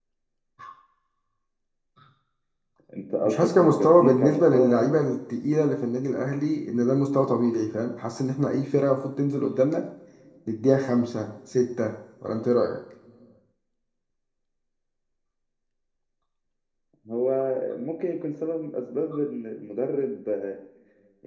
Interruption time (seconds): 3 s

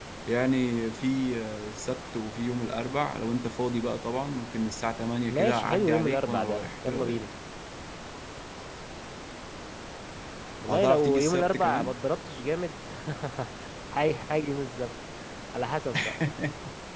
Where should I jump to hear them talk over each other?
5 s

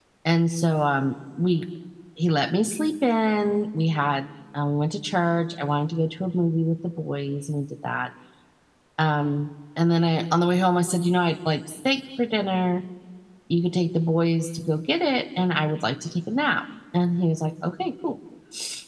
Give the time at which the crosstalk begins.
none

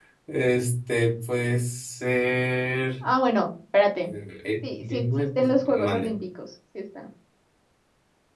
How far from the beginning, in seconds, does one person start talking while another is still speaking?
5 s

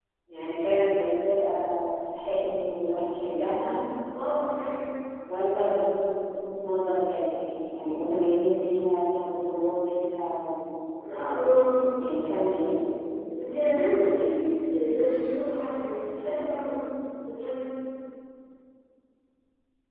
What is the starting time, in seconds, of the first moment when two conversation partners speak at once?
none

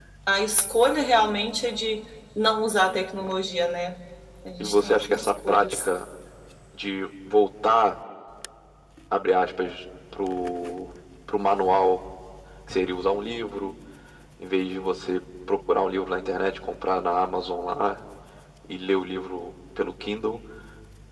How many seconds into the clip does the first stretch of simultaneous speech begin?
5 s

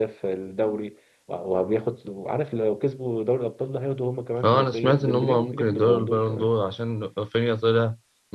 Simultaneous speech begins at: 4 s

